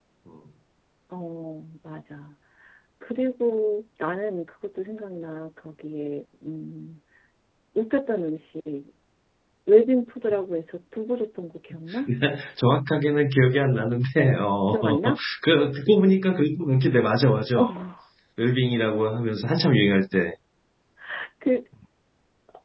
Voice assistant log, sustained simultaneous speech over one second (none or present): none